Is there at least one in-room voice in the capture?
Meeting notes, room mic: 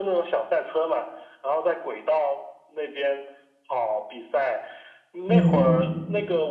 Yes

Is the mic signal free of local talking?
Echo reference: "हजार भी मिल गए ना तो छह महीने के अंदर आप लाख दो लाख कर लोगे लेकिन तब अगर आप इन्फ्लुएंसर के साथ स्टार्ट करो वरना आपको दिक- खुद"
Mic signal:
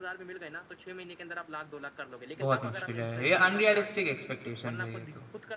No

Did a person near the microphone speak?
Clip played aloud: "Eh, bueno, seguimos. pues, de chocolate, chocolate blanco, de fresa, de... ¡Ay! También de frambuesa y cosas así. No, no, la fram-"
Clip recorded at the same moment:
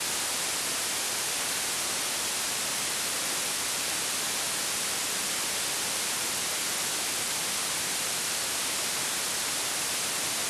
No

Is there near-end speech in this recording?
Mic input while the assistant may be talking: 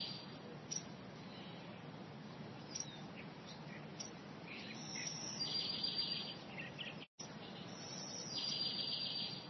No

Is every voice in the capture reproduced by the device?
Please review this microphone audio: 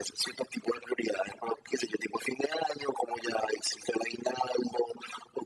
Yes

